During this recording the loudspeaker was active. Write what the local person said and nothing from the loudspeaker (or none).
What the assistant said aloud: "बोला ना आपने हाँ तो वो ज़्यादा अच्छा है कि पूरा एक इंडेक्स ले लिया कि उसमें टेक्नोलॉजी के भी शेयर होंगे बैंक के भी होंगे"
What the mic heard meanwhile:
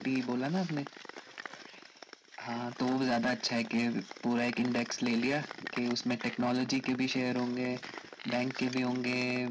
none